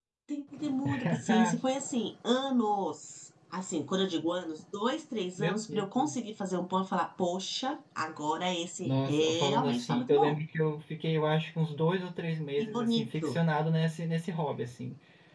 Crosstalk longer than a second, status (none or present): present